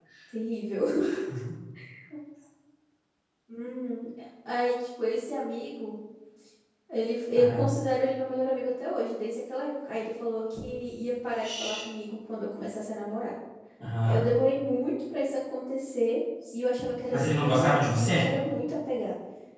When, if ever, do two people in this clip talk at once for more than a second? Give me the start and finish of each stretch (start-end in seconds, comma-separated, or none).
17.1-18.3